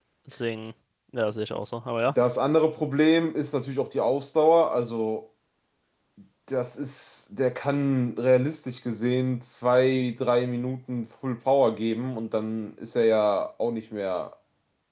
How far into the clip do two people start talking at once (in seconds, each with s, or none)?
none